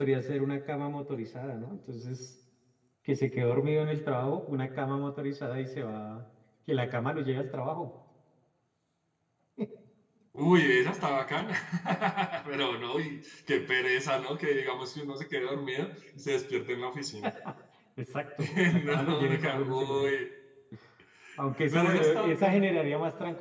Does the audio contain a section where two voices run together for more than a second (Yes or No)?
Yes